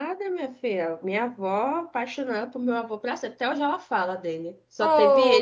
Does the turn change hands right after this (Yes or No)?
Yes